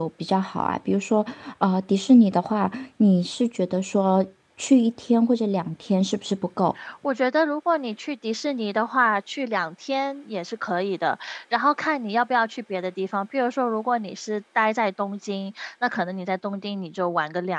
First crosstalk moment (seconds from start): none

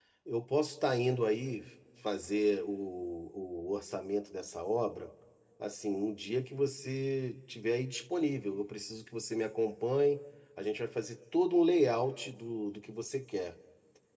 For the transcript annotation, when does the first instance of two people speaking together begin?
none

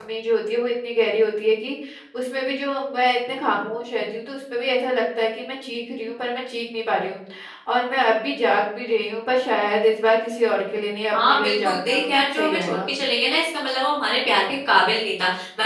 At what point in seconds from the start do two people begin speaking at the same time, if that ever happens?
11.1 s

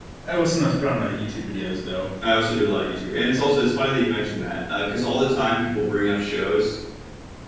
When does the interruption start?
none

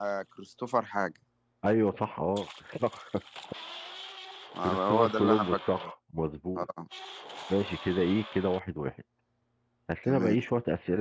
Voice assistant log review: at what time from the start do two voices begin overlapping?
4.6 s

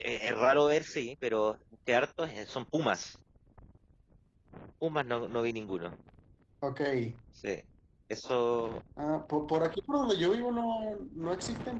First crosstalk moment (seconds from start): none

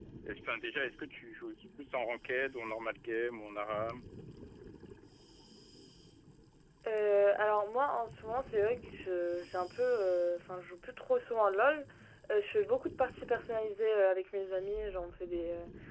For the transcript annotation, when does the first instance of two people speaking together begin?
none

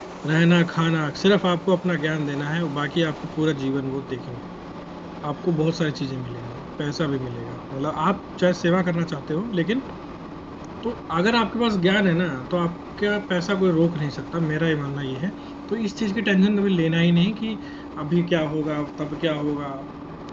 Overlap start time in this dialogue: none

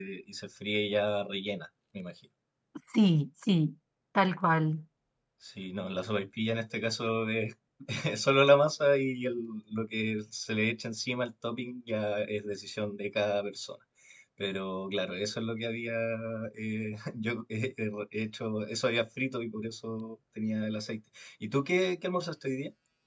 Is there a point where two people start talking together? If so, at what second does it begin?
none

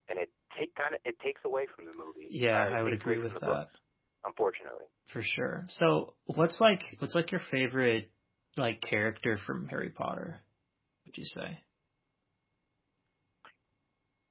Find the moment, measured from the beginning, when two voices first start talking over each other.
2.3 s

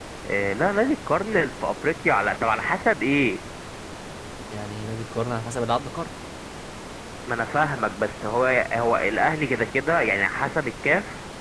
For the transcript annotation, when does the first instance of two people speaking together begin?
none

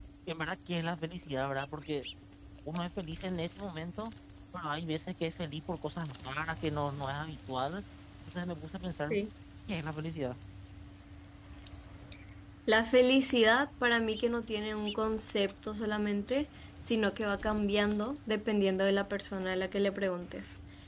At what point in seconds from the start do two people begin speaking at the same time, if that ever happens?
none

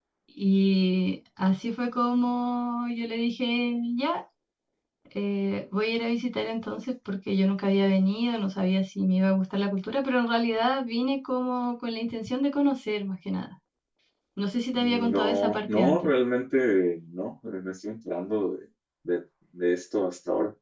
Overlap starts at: 14.8 s

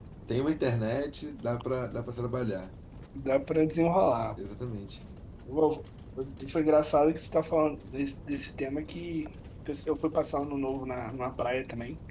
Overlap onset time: none

